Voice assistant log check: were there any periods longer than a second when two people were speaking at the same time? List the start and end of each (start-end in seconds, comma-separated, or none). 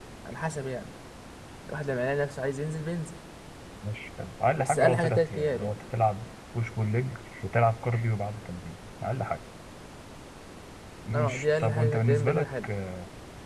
4.6-5.8, 11.1-12.7